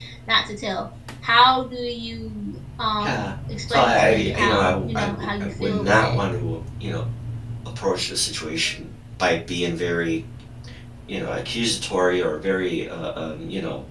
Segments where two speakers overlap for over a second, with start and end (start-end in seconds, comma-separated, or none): 3.7-6.2